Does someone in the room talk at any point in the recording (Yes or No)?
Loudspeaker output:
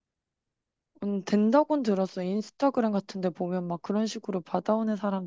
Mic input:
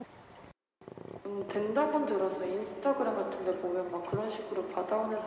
No